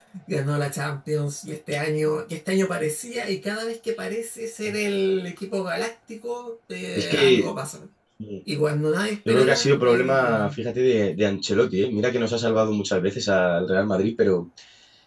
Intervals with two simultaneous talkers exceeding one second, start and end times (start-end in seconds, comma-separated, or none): 9.3-10.6